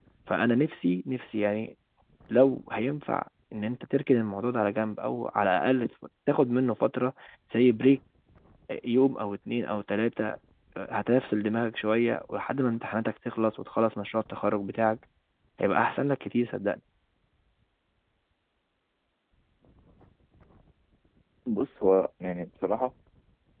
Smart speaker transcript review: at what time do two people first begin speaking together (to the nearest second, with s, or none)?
none